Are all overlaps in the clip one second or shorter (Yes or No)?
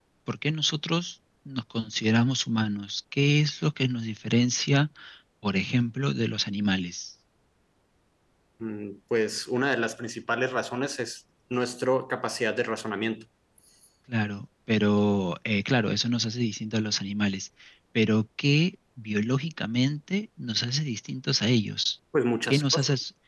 Yes